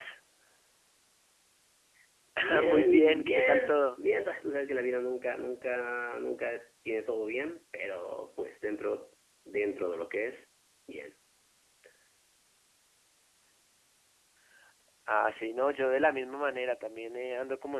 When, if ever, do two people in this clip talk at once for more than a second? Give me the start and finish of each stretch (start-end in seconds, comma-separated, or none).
2.6-4.0